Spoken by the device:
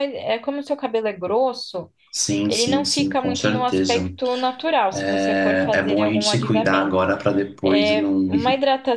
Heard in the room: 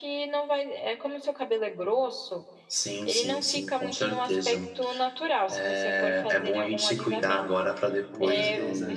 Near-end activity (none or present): present